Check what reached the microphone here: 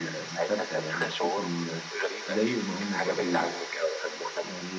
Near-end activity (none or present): present